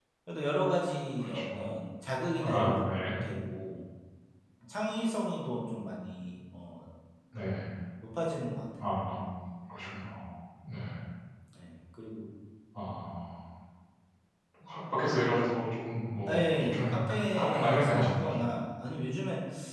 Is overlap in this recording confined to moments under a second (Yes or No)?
No